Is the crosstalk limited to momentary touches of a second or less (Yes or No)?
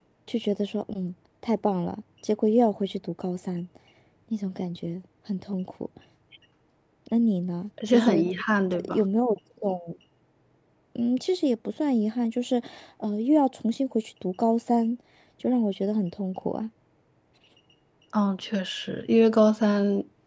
Yes